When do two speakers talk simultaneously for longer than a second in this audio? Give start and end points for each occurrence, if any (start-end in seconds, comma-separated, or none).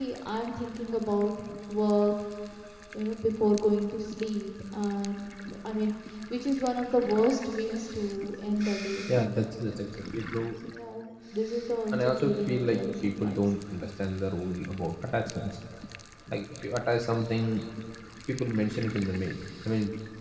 11.9-13.4